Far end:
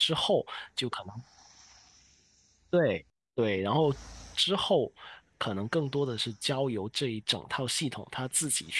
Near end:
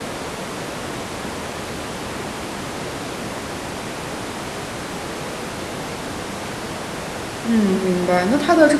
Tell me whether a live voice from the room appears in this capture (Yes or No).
Yes